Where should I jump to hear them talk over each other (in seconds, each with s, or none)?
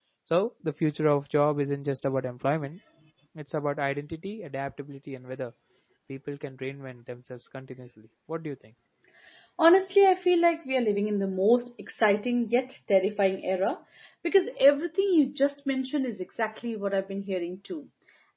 none